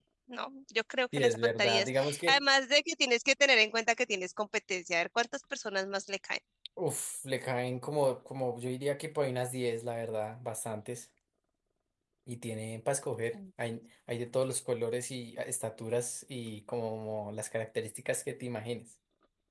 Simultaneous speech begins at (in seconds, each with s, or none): 1.2 s